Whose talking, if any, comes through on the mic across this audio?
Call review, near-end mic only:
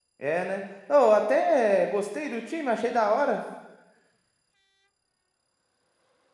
user only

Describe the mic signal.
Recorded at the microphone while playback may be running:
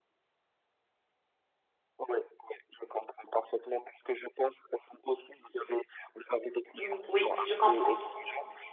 both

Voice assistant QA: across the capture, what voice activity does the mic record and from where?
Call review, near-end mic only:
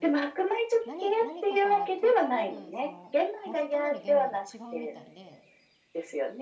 both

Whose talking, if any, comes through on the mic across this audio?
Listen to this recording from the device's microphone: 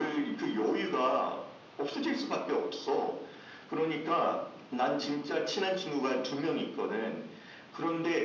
echo only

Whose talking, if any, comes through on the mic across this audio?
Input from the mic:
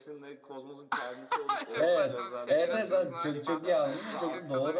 both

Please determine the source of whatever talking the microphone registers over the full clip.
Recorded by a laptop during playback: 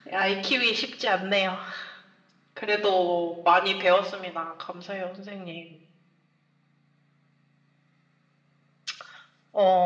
echo only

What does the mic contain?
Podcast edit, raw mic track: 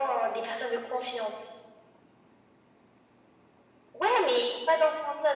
echo only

